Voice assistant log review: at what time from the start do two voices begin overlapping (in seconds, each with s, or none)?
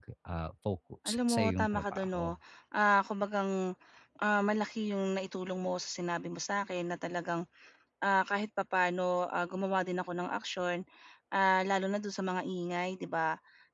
1.1 s